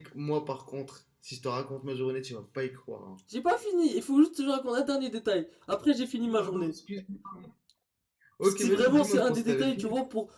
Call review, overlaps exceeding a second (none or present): present